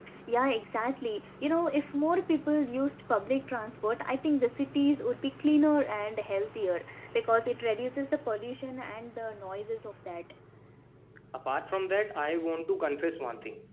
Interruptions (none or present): none